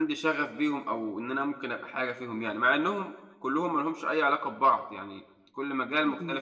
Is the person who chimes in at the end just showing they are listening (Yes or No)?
No